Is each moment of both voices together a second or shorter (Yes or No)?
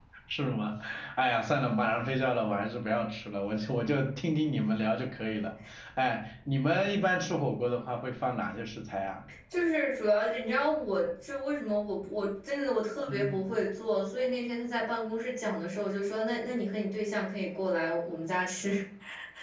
Yes